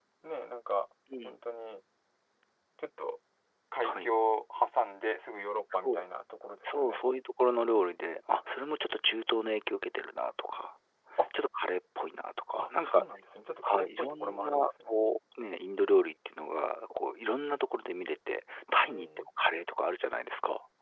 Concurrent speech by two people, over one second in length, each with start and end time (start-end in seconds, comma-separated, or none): 13.6-15.0